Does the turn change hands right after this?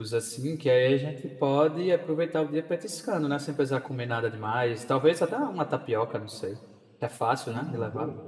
Yes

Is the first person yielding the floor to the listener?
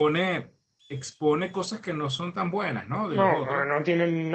Yes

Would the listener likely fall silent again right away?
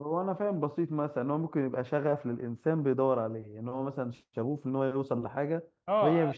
No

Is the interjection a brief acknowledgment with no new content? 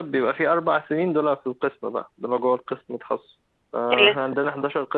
Yes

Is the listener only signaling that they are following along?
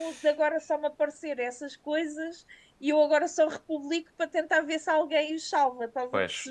No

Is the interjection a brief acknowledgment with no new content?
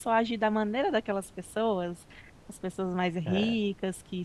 Yes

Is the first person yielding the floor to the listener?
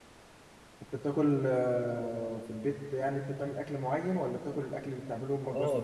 Yes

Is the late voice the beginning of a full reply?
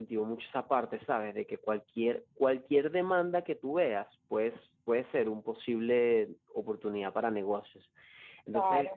No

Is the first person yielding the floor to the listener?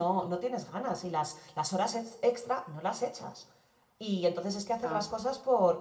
No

